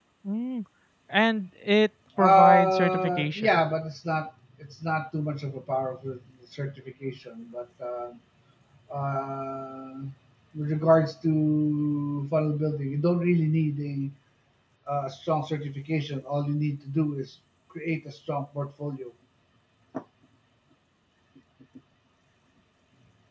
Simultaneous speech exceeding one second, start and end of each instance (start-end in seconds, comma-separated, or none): 2.2-3.6